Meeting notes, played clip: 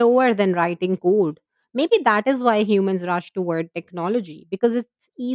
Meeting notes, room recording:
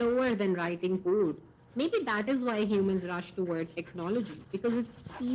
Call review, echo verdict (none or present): present